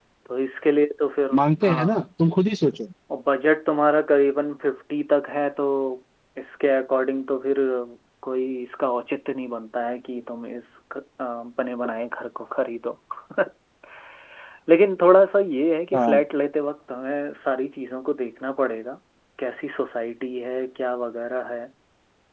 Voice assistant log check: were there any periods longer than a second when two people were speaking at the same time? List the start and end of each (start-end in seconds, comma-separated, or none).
none